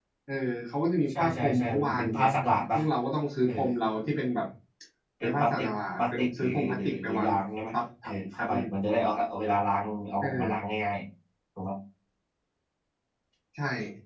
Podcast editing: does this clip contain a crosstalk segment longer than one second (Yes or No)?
Yes